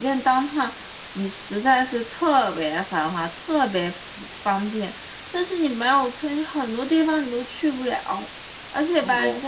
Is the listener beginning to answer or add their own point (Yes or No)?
No